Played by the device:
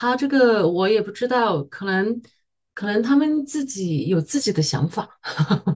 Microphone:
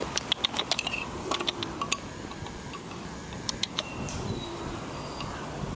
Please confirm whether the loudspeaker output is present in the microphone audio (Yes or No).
No